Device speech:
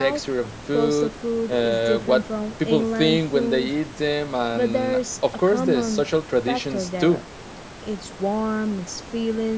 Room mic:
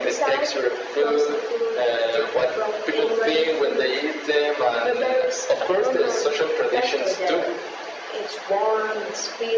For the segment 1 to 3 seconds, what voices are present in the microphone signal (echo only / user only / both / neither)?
echo only